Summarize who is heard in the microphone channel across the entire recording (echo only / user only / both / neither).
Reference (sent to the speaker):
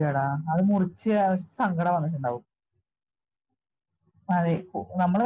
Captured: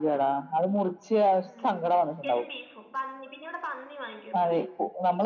both